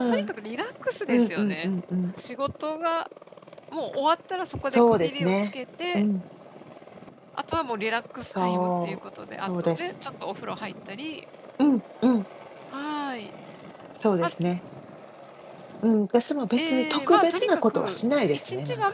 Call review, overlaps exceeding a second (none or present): present